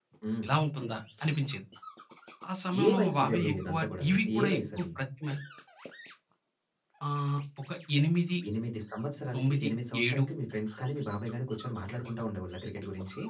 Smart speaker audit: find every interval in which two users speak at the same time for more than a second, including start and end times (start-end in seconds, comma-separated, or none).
2.8-4.9